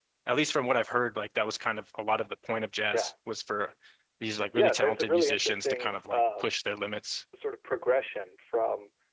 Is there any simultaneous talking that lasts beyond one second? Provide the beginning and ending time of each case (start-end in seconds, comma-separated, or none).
4.5-6.5